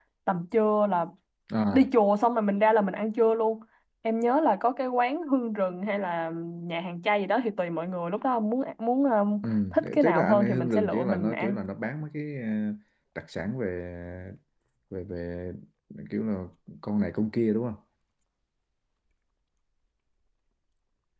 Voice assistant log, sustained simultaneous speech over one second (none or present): present